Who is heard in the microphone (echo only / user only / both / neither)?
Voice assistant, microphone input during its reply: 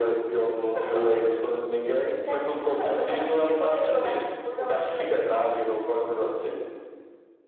echo only